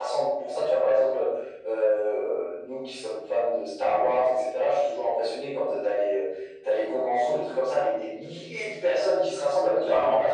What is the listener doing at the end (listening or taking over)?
listening